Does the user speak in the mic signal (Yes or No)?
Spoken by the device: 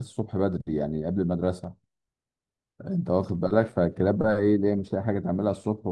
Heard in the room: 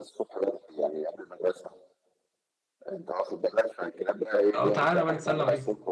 Yes